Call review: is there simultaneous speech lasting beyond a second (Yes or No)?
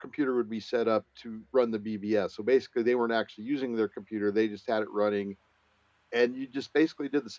No